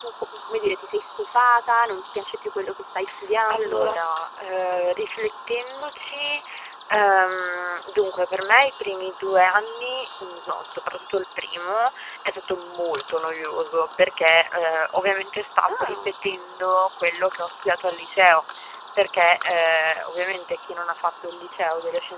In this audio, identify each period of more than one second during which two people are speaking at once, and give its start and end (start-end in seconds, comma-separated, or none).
none